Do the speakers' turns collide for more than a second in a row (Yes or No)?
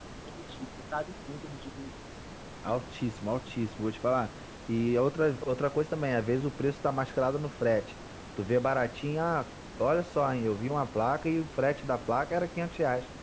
No